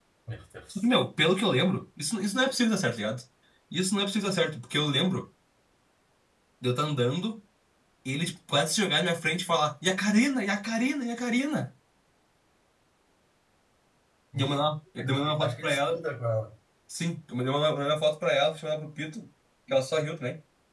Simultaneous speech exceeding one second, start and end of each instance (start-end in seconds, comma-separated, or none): 14.4-16.0